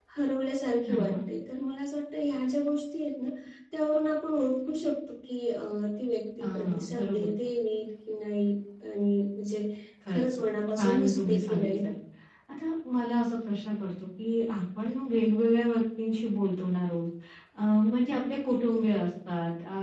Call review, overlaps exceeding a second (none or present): present